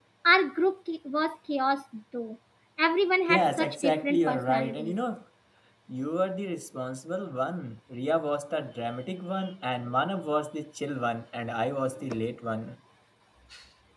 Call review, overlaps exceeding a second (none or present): present